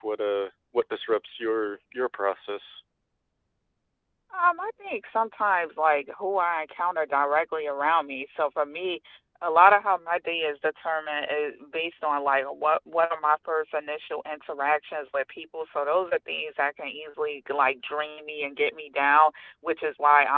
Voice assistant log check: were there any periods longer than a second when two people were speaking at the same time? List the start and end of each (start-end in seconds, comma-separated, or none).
none